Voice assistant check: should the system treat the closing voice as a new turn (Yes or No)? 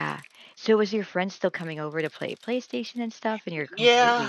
Yes